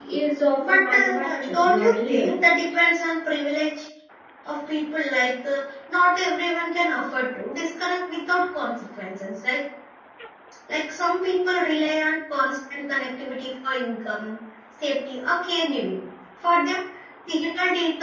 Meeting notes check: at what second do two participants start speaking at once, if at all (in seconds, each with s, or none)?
0.6 s